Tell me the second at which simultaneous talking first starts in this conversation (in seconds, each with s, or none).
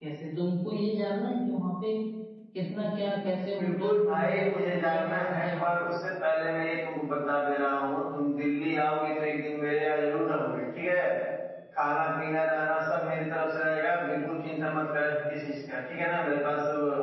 3.6 s